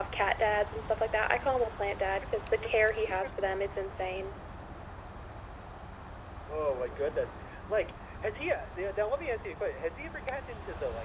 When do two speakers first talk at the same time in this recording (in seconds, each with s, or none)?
none